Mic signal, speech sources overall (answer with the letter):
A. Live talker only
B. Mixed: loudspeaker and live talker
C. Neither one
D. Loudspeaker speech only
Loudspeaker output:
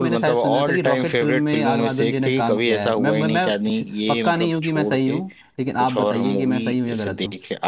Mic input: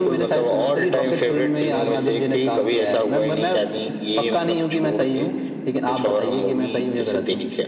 D